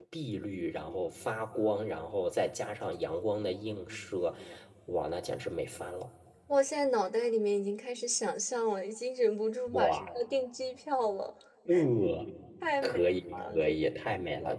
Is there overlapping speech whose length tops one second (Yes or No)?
Yes